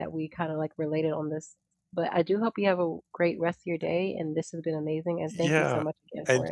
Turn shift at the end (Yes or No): Yes